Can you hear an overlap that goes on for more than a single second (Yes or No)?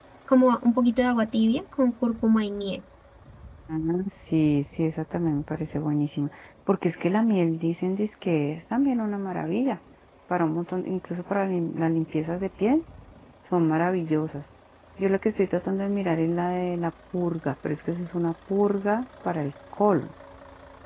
No